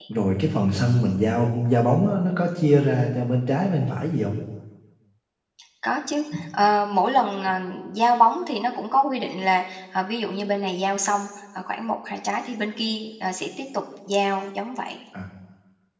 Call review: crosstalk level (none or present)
none